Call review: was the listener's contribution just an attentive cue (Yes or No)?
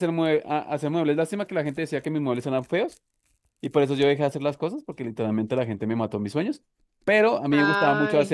Yes